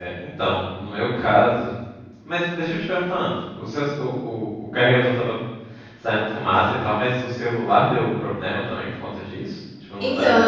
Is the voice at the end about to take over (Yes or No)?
Yes